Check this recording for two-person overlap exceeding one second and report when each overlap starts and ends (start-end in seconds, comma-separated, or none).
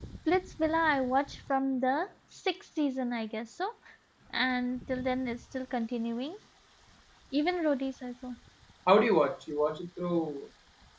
none